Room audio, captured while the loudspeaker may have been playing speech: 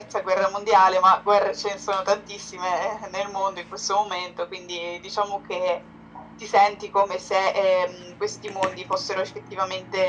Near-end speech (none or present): none